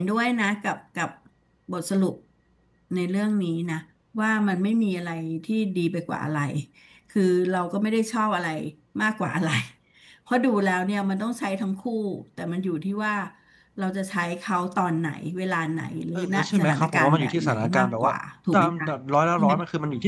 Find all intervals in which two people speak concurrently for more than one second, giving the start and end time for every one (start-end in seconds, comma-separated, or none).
16.2-18.1